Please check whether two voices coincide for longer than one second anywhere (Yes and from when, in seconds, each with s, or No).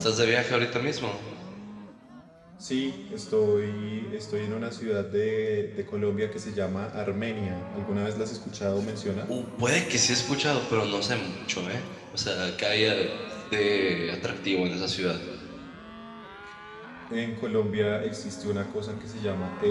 No